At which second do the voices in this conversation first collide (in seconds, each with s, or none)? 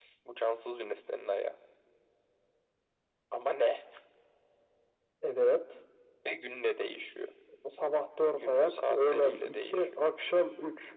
8.4 s